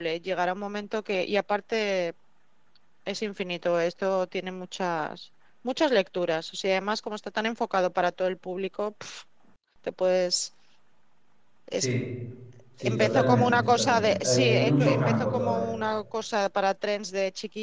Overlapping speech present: Yes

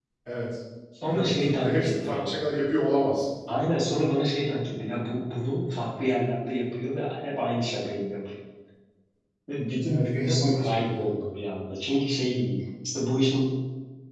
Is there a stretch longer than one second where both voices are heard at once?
Yes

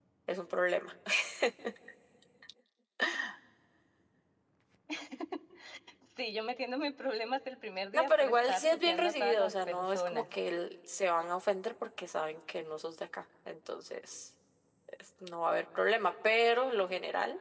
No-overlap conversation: No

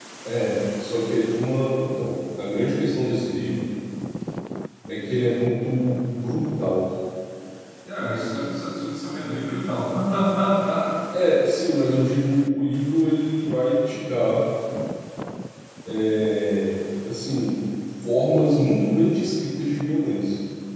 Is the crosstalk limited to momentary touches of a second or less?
Yes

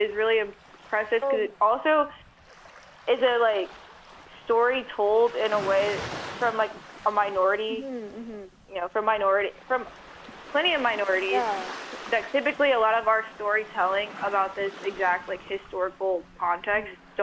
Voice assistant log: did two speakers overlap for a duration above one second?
No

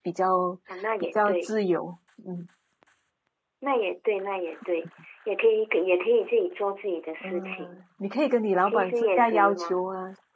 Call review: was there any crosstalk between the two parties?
Yes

